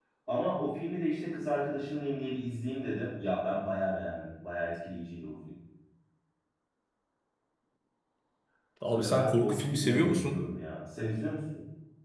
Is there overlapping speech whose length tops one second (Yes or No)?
Yes